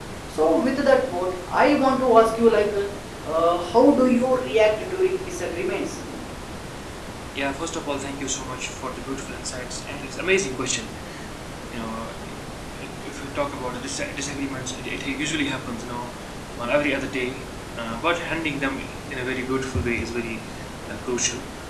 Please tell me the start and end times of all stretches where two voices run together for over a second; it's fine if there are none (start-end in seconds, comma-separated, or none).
none